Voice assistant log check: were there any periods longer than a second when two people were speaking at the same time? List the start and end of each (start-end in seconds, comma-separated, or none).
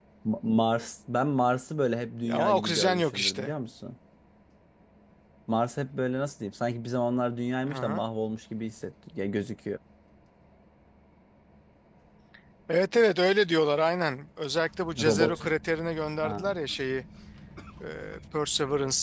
2.2-3.5